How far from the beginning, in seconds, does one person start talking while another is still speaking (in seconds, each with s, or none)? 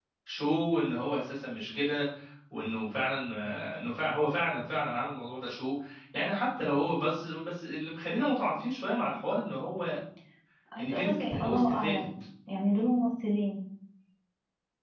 10.8 s